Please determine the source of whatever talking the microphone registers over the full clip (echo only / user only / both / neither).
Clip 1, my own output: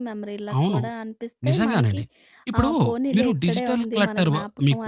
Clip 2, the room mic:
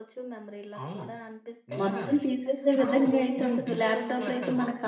both